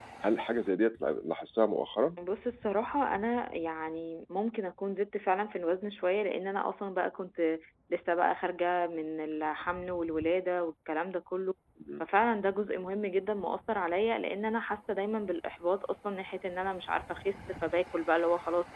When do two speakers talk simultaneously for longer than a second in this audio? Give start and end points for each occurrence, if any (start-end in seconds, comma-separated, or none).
none